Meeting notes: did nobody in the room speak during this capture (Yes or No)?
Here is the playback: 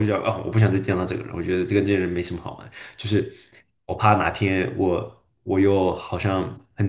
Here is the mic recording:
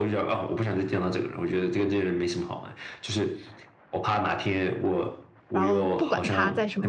No